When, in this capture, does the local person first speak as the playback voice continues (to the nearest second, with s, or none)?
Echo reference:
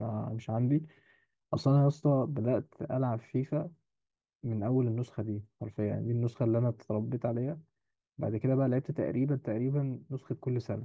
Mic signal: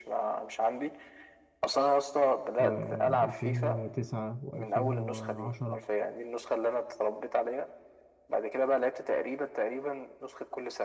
3 s